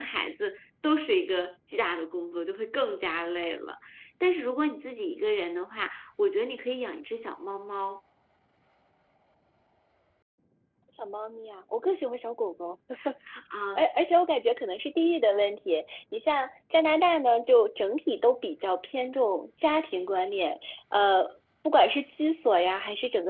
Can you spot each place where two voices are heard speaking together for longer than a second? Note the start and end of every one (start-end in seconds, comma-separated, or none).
none